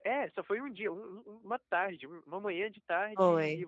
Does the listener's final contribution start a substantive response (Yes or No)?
No